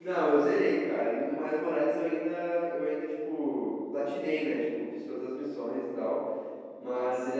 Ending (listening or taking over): listening